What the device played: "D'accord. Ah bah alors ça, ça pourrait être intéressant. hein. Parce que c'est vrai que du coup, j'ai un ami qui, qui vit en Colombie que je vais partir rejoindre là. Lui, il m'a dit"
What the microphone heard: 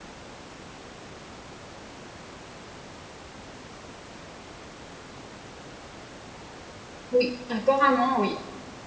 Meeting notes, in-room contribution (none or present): present